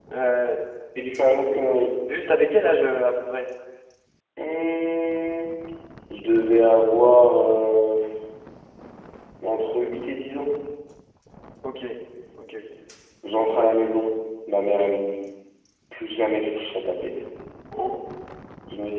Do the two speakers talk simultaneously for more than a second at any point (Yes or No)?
No